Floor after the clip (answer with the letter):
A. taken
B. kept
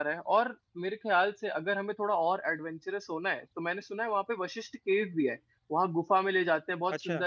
B